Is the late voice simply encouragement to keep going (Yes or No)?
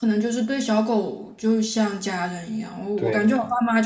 Yes